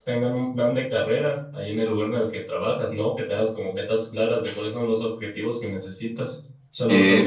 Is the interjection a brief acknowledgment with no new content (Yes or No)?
No